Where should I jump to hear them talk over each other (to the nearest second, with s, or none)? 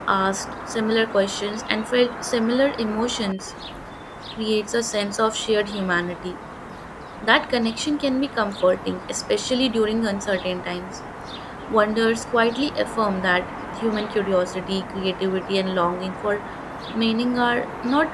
none